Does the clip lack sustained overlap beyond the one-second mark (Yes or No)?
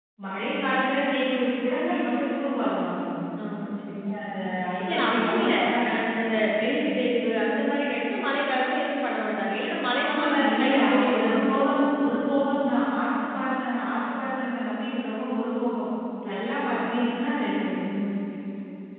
No